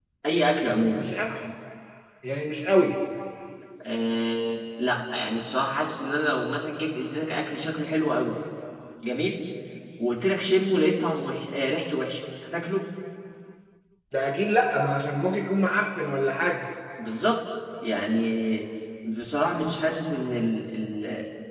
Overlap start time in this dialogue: none

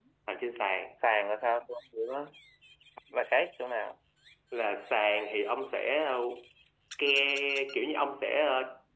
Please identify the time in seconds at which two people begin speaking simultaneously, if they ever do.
none

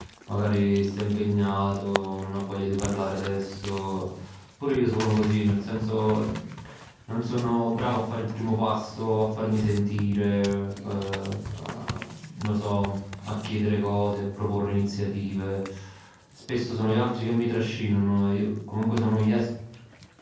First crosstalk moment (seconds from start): none

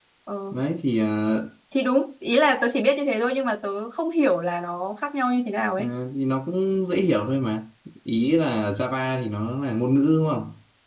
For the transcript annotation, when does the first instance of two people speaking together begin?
none

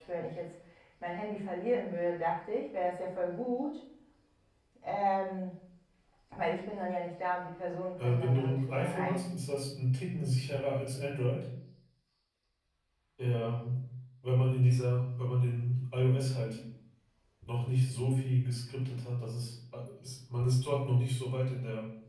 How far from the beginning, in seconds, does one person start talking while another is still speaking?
8.0 s

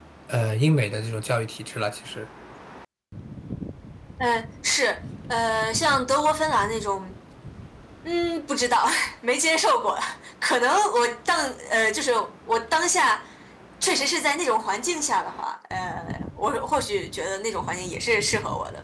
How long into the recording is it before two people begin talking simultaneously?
none

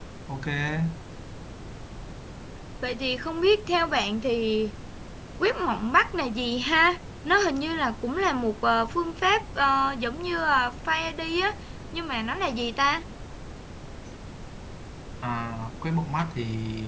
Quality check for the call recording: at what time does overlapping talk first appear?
none

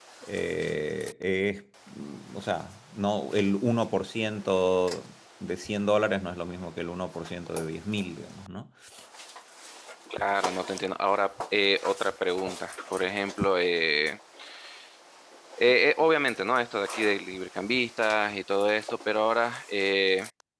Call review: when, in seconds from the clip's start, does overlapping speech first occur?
none

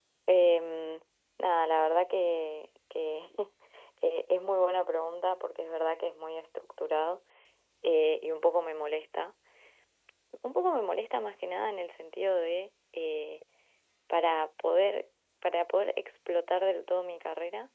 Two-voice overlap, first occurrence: none

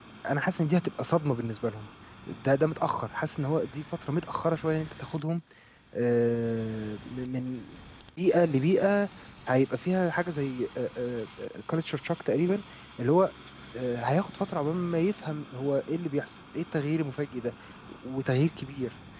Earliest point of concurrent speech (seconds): none

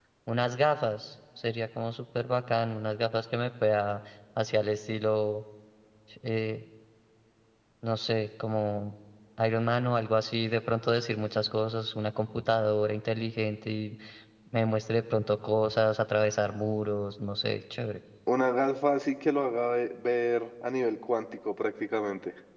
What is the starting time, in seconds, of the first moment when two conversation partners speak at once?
none

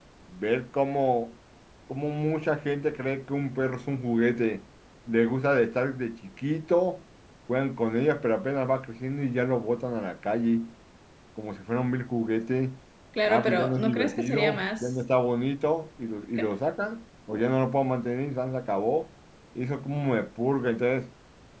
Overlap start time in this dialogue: 13.2 s

